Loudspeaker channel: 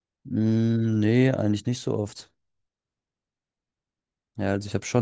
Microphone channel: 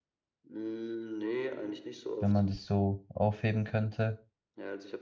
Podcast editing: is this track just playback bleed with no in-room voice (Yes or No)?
No